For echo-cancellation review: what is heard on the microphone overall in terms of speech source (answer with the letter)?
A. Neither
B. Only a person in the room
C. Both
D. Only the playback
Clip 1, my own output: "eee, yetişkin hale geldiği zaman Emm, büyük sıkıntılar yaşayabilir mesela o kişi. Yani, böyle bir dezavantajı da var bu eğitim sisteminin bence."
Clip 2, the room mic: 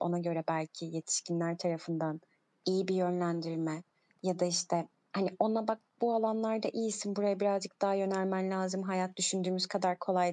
B